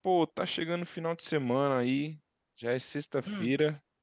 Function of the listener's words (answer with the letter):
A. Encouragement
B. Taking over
A